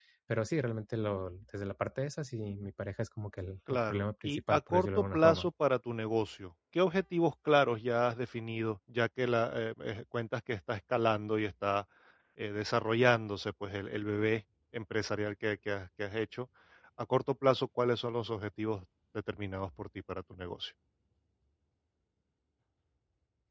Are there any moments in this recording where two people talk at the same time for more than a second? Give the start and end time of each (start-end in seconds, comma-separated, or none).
3.9-5.5